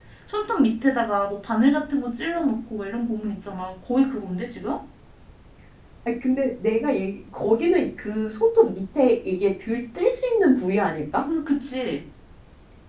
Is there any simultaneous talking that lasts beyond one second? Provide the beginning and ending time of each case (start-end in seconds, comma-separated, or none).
none